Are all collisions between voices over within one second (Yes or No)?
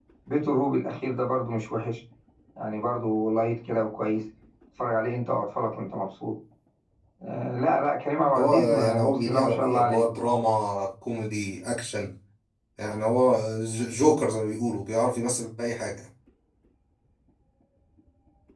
No